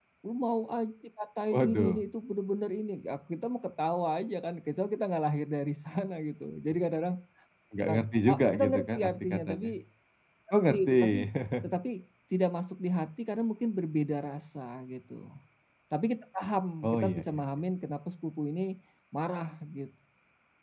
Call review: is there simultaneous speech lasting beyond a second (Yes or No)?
Yes